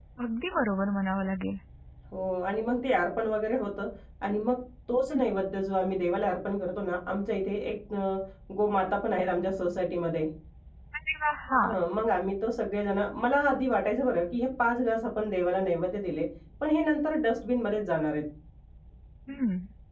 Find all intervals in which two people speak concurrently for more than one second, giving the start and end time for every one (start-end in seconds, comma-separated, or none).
none